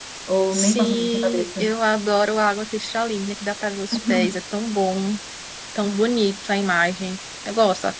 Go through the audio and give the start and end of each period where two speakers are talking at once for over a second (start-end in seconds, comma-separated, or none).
0.5-1.7